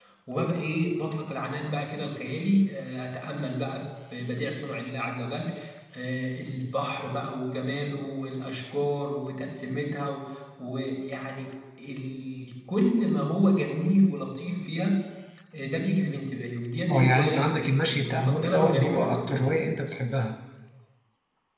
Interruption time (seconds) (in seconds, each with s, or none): 16.9 s